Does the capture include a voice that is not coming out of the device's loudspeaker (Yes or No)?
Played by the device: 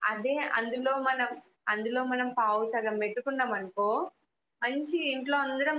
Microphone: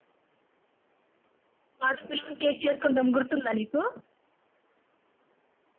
Yes